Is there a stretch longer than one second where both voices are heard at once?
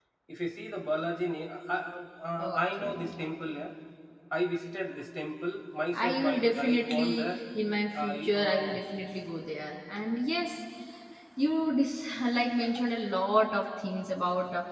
Yes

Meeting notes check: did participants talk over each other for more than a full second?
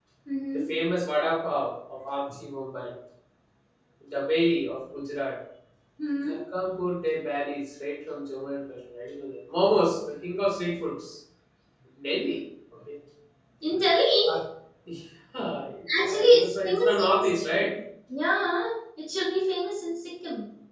Yes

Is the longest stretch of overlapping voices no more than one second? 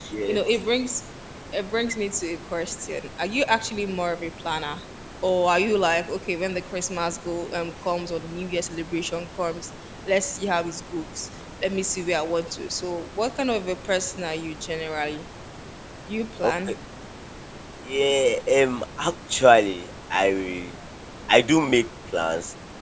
Yes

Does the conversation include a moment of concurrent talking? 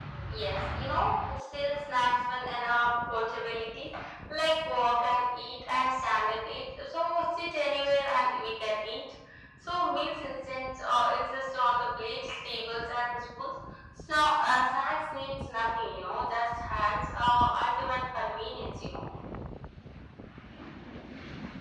No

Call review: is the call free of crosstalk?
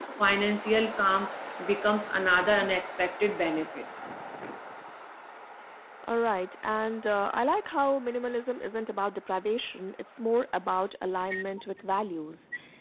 Yes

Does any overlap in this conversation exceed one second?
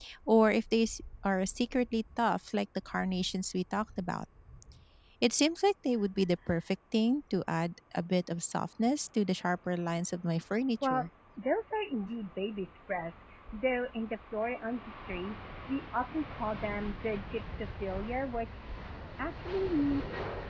No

